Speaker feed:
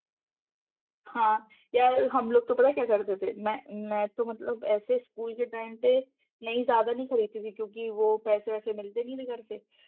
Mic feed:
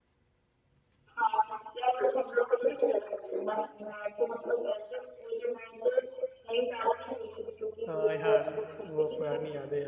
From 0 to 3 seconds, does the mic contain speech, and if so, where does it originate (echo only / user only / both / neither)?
echo only